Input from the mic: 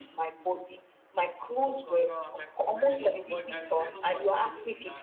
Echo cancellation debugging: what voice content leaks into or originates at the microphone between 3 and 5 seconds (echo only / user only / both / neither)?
both